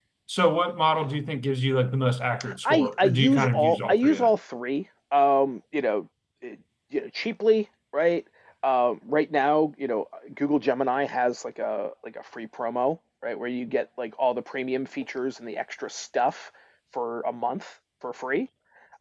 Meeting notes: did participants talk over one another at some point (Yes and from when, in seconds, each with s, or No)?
Yes, from 2.4 s